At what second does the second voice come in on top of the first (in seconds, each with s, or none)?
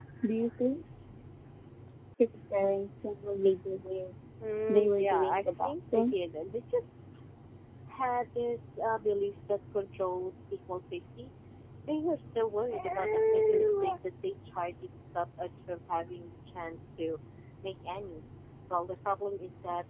4.7 s